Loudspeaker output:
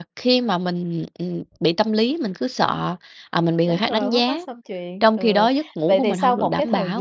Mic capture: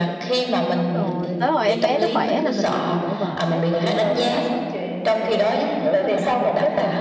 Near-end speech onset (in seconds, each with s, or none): 0.8 s